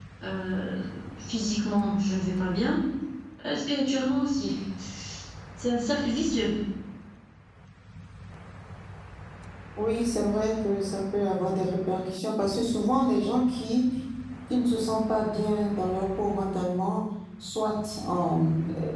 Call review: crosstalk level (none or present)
none